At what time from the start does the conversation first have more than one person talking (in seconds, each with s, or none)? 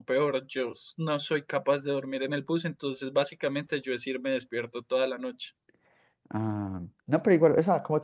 none